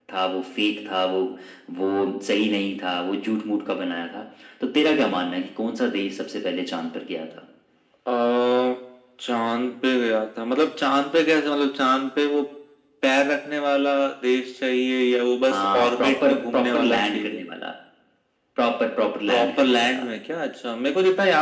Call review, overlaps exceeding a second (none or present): present